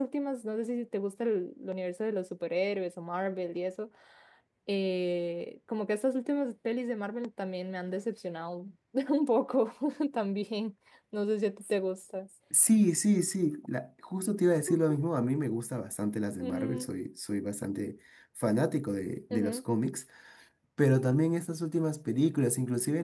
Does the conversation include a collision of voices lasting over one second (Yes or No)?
No